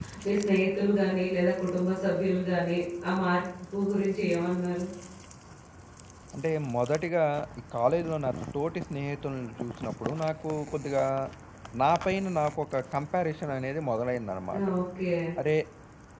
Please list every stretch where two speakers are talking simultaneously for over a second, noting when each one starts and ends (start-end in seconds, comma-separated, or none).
none